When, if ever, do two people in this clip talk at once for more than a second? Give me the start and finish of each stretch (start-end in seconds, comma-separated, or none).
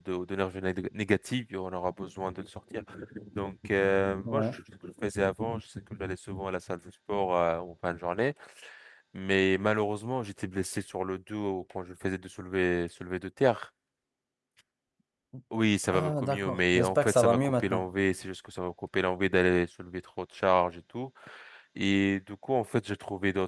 15.9-17.8